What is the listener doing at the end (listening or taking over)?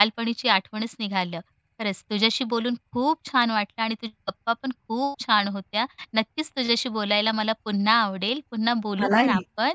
listening